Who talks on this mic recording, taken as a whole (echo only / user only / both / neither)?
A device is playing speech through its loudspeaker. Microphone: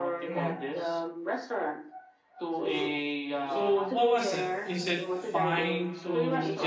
both